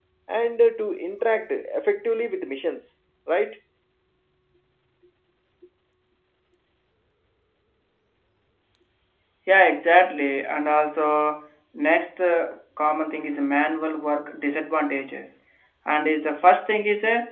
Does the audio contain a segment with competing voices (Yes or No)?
No